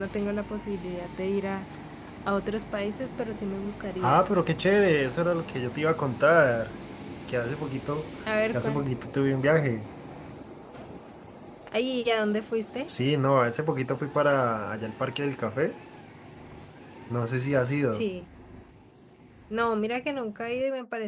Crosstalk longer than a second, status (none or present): none